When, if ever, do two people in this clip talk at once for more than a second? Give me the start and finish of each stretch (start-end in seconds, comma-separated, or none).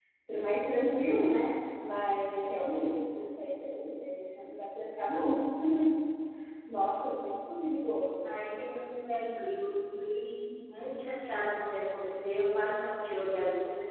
none